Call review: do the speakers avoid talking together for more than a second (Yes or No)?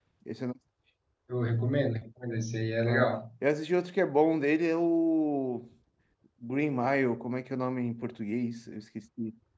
Yes